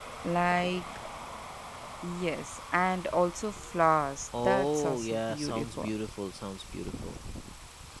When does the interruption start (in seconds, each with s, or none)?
4.3 s